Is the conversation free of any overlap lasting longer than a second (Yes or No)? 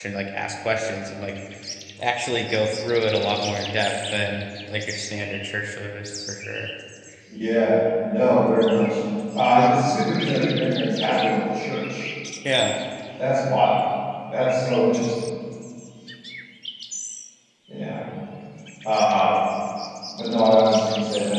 Yes